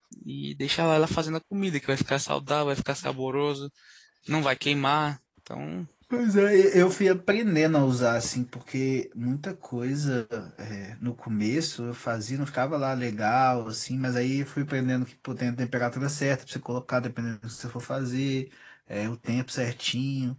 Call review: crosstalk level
none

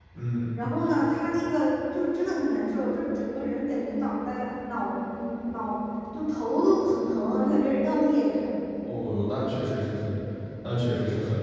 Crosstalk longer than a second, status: none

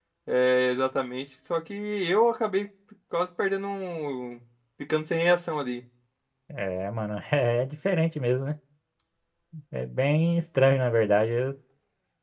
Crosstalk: none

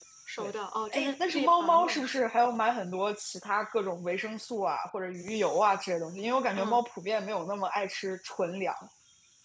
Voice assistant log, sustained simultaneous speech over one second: present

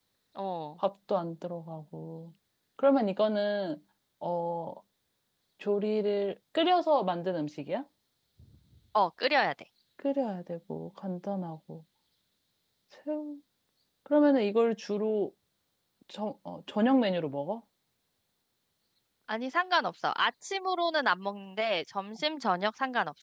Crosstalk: none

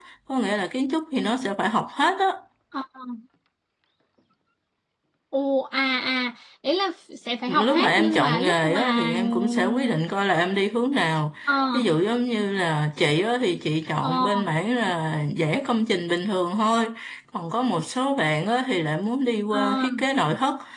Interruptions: present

